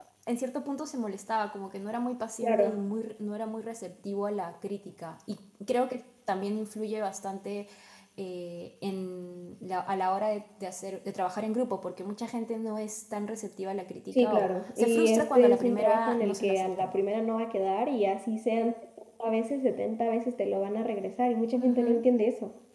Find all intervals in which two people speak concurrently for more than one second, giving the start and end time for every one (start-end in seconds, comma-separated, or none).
14.1-16.9